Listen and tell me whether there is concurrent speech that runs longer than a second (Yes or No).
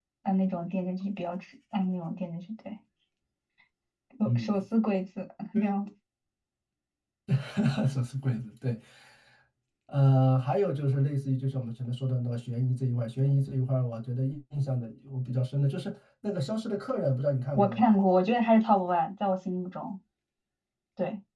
No